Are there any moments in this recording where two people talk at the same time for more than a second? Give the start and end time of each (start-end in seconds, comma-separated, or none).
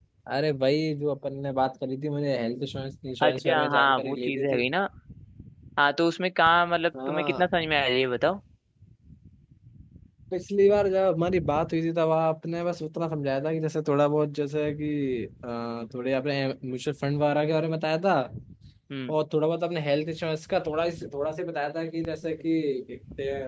3.2-4.7